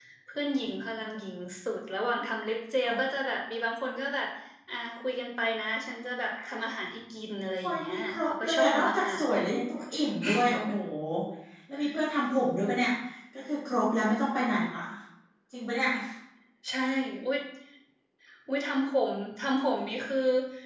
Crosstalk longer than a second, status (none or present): present